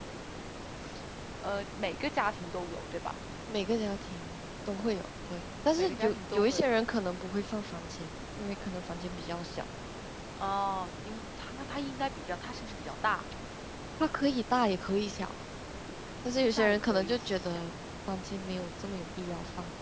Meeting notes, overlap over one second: present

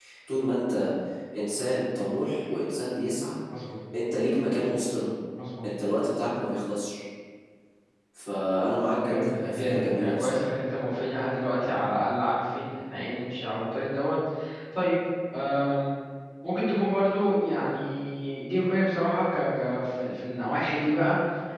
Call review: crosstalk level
present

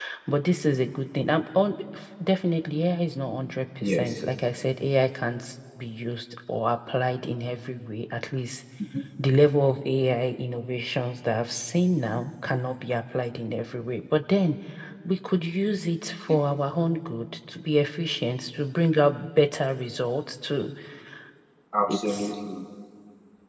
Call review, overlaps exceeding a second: none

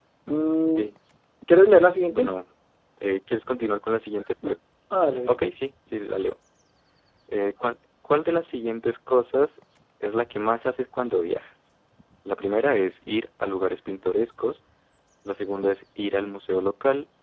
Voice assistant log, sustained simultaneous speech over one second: none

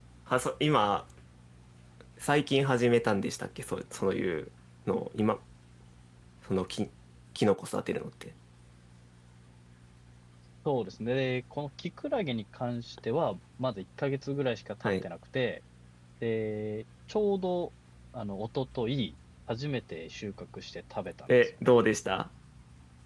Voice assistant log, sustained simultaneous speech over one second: none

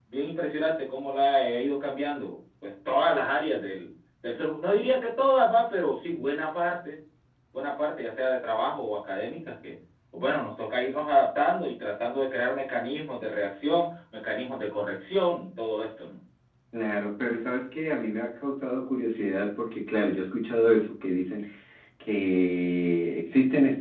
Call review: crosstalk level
none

